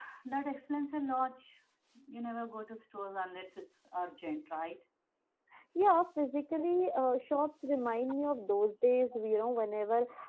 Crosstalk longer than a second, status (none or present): none